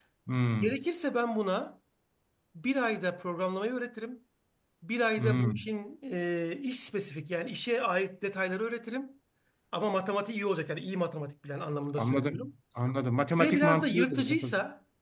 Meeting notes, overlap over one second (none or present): present